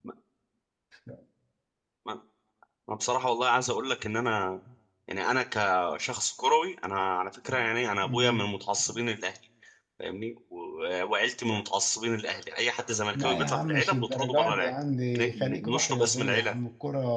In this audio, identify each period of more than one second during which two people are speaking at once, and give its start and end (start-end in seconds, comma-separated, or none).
13.1-14.7, 15.2-16.5